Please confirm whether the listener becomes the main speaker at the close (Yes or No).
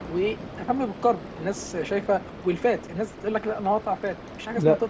Yes